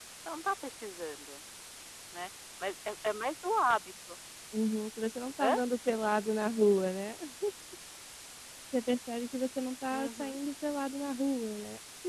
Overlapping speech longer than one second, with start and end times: none

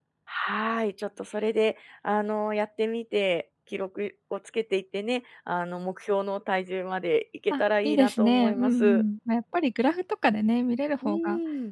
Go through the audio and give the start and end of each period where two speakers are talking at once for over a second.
7.5-9.0

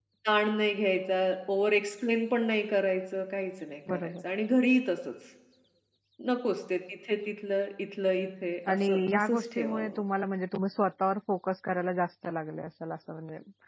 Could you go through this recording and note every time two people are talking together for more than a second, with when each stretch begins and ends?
8.7-10.0

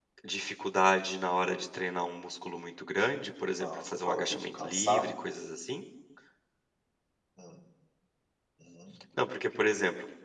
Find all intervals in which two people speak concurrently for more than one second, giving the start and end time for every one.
3.6-5.1

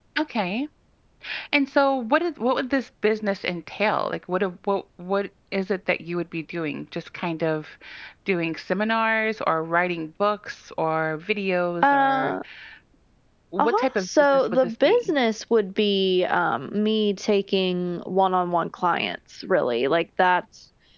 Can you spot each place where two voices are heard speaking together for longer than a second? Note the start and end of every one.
13.6-15.1

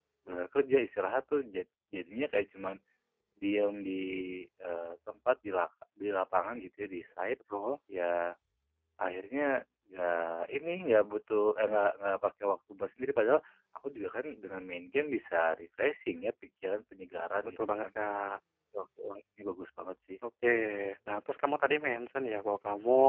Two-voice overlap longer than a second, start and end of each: none

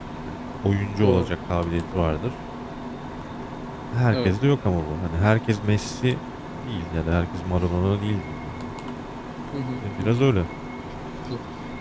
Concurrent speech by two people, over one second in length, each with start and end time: none

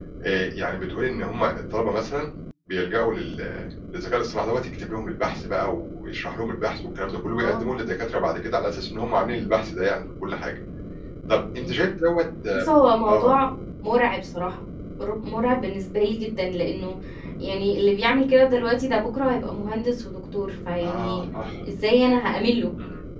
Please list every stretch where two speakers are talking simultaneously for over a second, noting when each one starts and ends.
none

